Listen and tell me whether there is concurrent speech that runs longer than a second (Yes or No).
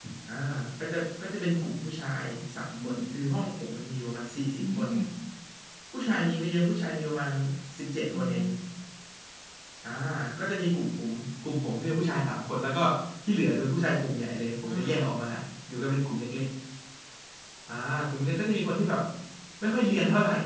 No